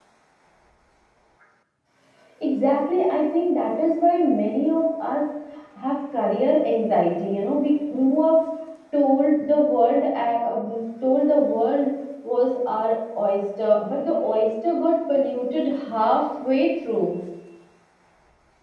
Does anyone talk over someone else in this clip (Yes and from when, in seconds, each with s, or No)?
No